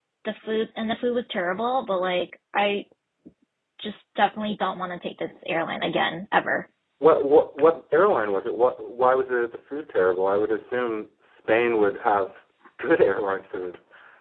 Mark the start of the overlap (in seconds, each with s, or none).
none